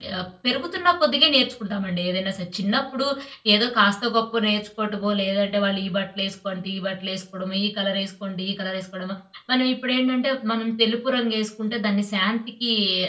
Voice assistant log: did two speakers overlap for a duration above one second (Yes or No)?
No